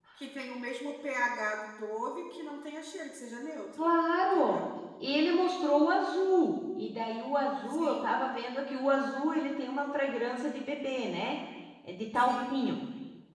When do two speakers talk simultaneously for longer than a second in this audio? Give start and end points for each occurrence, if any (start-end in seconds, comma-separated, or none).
none